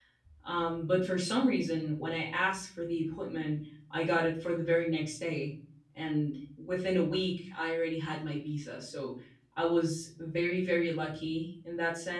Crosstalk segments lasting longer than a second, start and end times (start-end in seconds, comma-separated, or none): none